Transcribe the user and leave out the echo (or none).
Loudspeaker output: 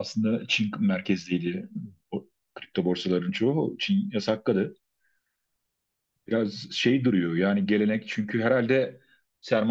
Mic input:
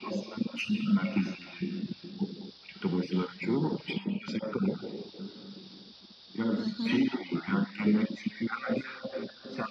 Hı hı.